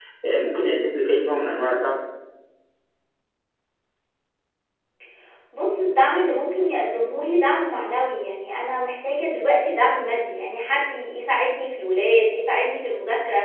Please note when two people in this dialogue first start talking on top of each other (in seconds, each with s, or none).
none